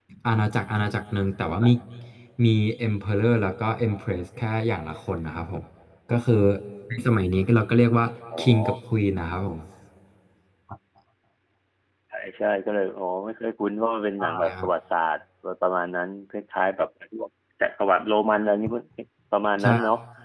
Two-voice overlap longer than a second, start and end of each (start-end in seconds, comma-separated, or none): none